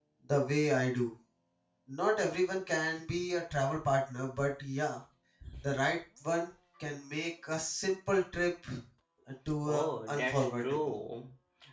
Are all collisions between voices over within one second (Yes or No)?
No